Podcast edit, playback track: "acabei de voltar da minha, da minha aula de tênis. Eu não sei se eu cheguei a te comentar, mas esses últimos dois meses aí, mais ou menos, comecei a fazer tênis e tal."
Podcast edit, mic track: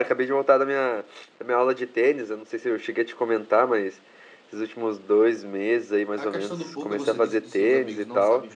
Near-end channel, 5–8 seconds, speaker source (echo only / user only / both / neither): both